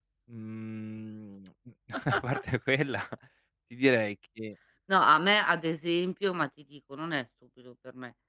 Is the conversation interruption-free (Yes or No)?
Yes